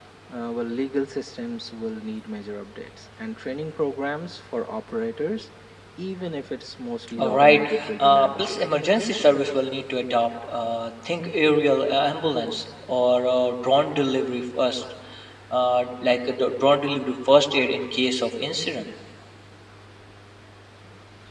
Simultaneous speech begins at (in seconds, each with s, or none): 7.2 s